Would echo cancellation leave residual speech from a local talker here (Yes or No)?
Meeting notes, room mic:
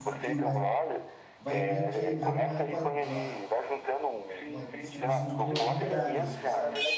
Yes